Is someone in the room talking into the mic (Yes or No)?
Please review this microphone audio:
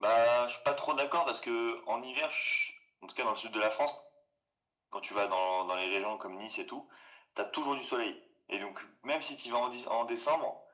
No